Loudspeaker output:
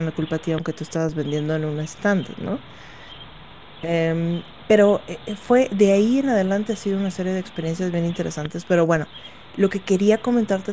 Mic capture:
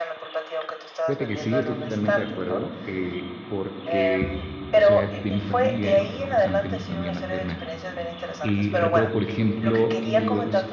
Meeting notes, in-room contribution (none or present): present